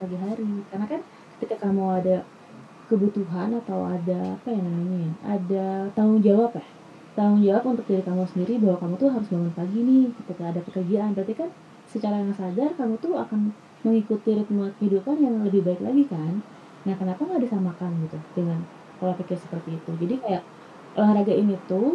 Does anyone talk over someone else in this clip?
No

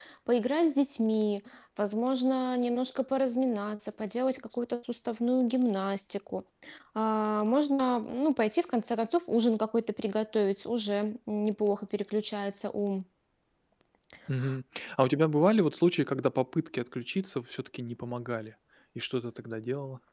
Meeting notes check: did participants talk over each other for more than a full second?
No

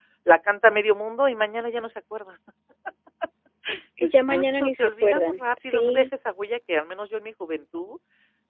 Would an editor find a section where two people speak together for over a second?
Yes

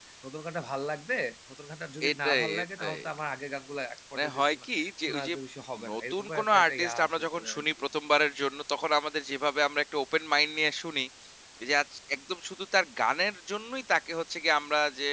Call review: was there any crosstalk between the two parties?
Yes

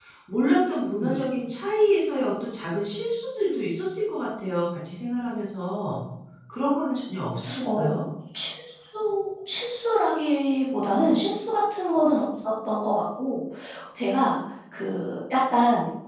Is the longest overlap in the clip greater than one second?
No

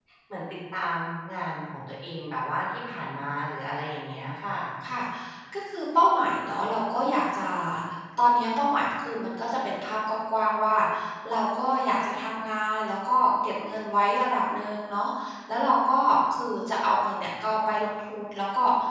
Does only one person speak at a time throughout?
Yes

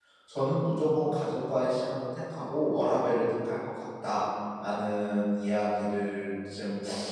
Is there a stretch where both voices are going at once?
No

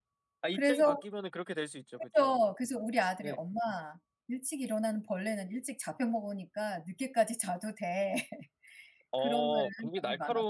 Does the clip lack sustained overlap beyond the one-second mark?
No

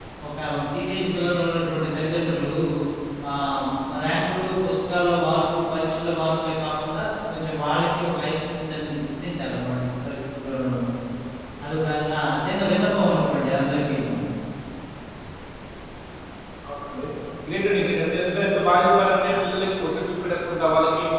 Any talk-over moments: No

